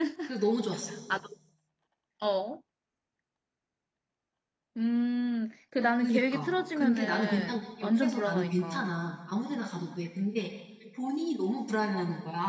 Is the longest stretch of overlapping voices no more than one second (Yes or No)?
No